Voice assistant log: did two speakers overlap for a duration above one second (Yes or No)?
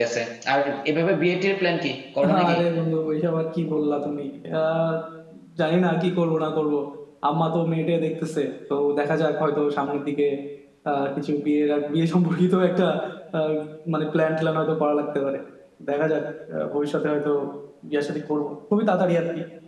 No